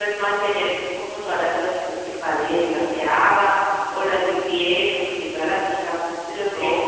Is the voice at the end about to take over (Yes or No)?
Yes